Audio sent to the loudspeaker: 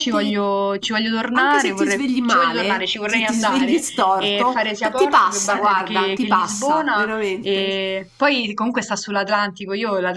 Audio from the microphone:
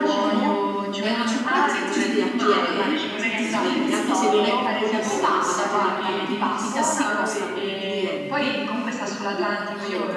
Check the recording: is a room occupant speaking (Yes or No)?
Yes